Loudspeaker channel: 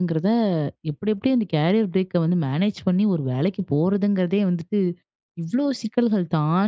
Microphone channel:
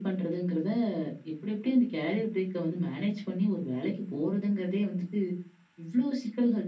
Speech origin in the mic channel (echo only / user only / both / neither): echo only